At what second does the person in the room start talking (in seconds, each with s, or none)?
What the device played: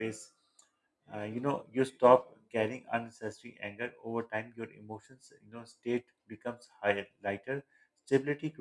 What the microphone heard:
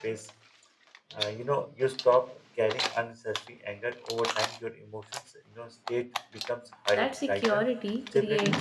6.9 s